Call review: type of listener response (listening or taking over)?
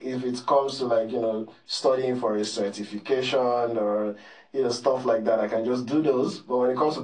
listening